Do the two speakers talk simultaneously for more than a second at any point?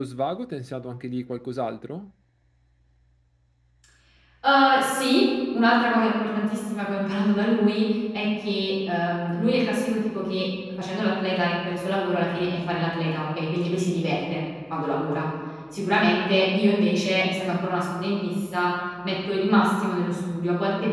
No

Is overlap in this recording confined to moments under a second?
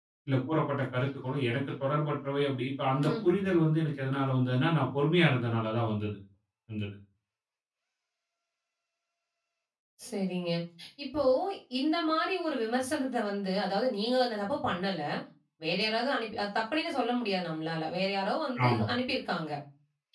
Yes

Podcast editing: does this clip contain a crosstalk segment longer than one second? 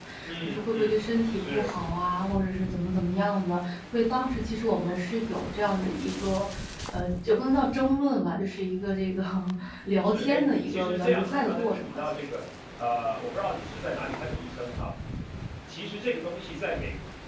Yes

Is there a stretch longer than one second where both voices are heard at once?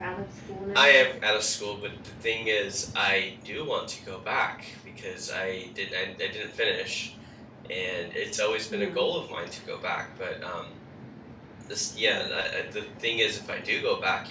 No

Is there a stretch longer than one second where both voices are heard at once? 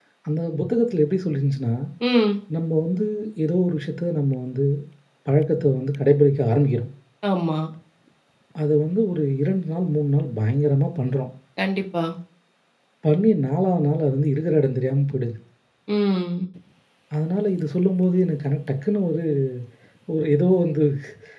No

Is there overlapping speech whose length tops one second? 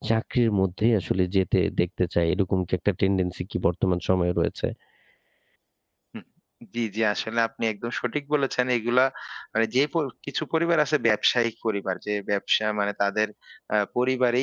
No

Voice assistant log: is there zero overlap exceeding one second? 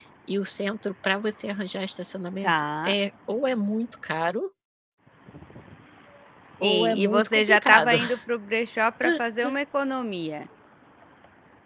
No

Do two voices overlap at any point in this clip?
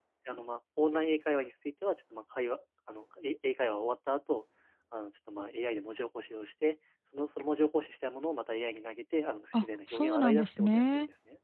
Yes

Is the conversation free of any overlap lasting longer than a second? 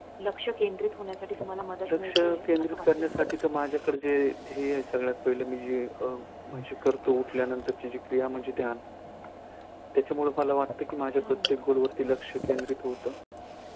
No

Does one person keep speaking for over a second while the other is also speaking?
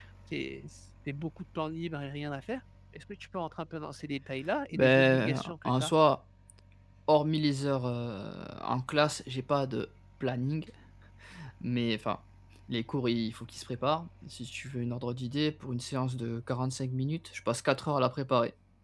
Yes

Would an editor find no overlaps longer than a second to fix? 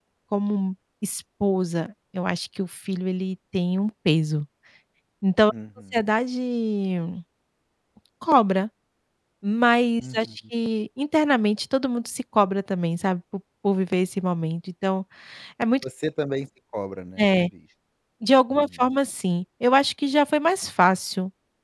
Yes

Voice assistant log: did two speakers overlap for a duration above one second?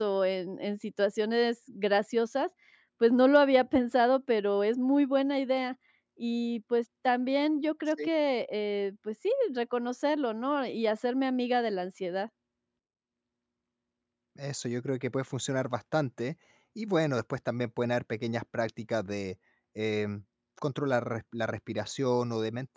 No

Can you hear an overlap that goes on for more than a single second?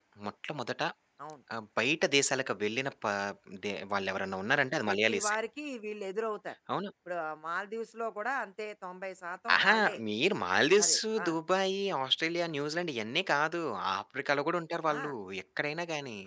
No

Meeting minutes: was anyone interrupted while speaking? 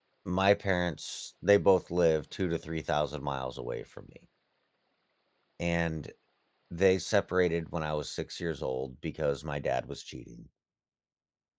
No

